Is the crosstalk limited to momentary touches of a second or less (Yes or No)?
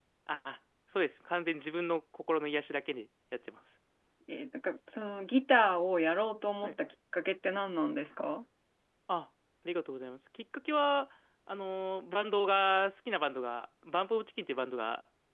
Yes